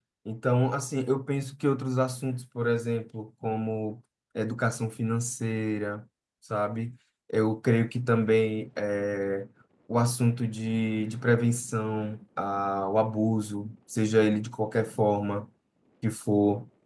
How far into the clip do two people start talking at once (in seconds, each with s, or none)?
none